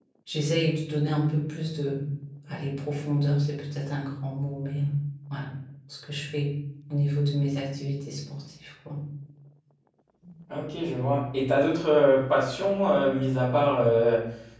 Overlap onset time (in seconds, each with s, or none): none